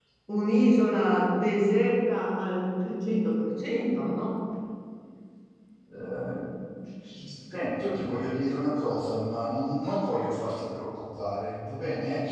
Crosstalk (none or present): none